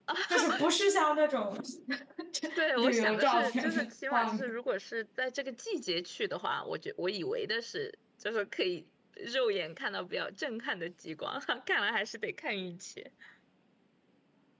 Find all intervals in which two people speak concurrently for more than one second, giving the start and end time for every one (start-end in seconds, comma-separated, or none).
2.8-4.5